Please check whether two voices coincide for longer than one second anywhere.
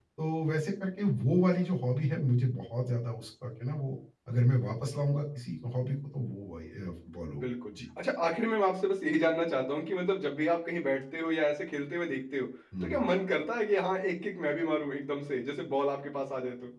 No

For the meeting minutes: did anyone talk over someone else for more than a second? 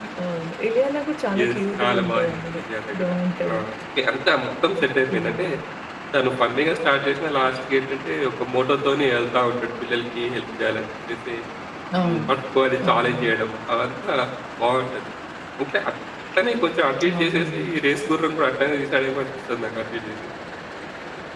Yes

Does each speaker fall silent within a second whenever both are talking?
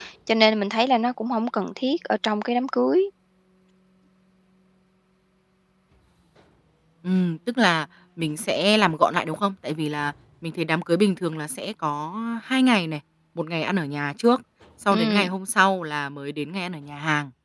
Yes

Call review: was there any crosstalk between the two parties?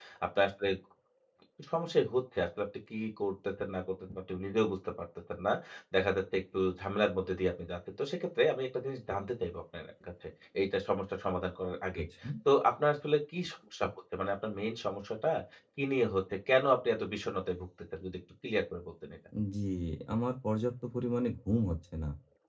No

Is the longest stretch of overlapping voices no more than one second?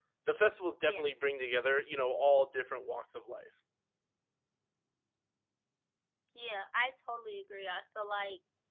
Yes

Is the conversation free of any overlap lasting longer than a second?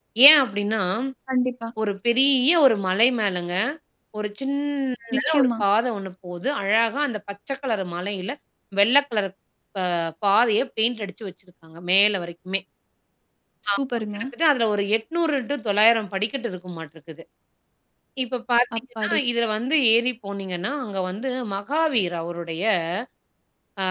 Yes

